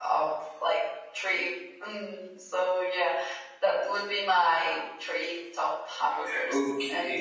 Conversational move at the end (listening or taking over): taking over